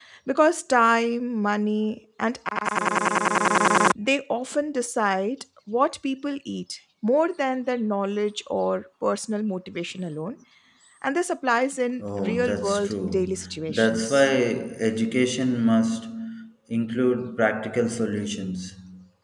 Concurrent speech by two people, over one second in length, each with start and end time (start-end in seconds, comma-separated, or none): 12.0-14.3